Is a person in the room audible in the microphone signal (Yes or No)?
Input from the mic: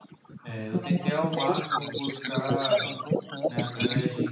Yes